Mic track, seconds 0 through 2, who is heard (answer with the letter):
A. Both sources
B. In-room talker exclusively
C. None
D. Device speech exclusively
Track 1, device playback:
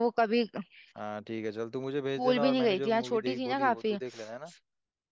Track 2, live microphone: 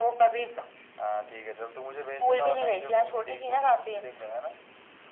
D